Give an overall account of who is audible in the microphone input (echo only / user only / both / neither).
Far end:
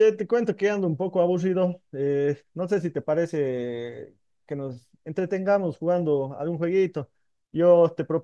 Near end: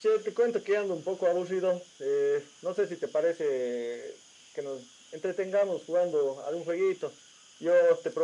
echo only